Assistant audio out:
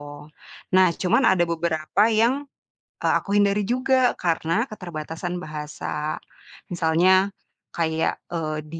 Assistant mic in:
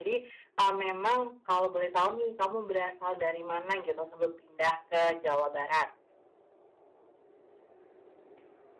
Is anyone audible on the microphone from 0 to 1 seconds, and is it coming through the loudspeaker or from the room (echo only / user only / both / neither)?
user only